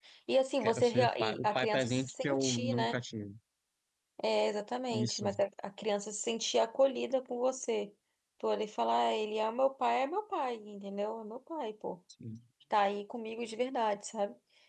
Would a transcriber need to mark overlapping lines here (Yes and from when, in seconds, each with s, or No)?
Yes, from 0.6 s